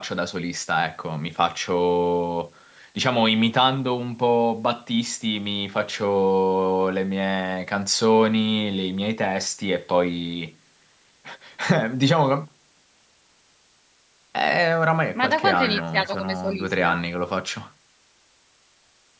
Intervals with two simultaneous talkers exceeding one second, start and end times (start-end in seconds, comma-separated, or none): 15.2-17.0